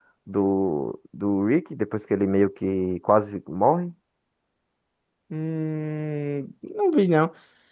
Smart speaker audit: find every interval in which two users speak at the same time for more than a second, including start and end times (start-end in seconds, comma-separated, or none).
none